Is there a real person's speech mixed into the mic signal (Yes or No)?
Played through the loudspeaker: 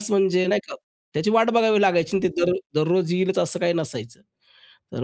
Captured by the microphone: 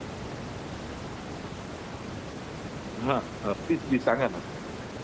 Yes